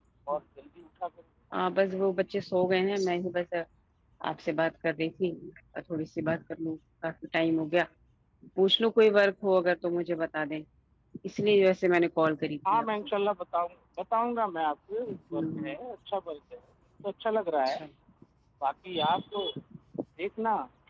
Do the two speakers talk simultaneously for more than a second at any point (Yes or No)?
No